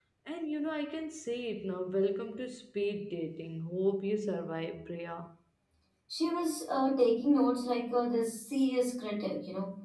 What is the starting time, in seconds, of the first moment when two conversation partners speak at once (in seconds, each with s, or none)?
none